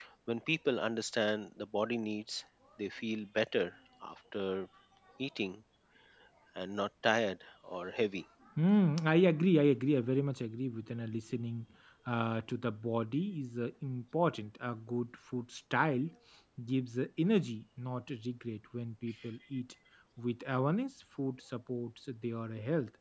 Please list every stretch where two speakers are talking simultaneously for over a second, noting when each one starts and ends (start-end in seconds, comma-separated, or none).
none